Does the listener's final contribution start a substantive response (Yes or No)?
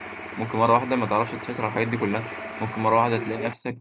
No